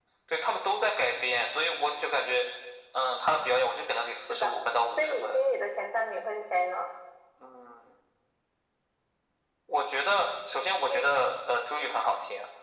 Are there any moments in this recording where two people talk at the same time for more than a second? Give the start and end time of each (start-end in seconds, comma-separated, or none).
none